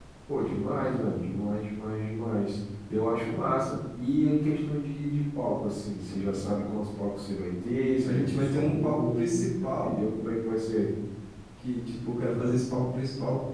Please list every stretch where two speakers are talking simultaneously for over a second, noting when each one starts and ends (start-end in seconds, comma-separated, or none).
8.0-9.3